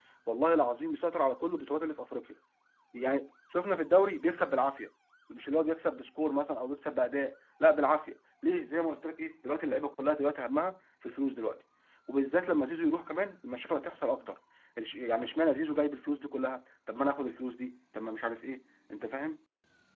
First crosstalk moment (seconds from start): none

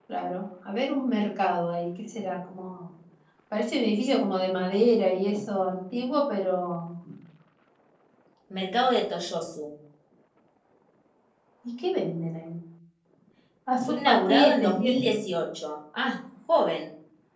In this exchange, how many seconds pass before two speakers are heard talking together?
13.9 s

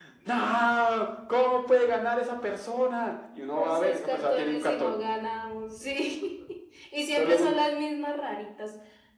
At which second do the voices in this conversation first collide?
3.5 s

